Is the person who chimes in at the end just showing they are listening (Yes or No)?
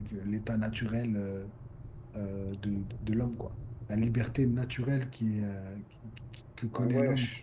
No